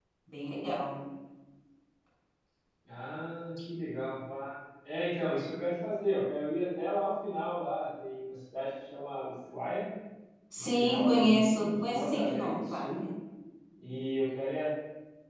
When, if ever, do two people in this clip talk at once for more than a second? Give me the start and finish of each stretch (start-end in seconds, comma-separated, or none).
10.6-13.0